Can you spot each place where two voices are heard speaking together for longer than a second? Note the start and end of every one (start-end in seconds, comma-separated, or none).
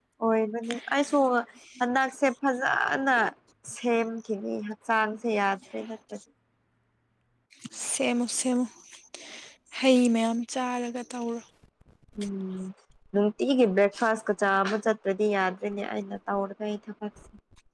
none